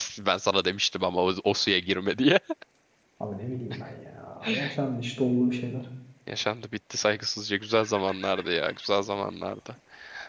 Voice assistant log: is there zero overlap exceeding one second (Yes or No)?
Yes